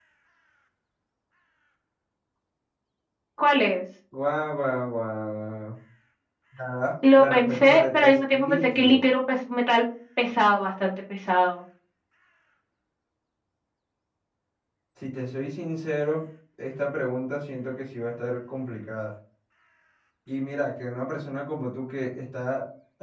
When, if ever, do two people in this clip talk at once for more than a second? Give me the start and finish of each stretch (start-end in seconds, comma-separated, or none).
7.2-9.0